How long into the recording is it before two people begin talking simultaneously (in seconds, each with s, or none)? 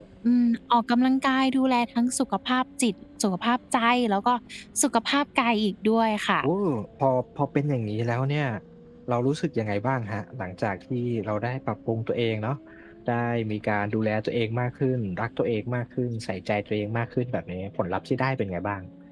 none